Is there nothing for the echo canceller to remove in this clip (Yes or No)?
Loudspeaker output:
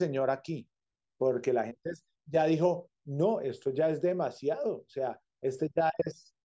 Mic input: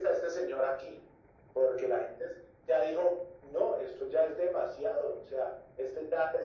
No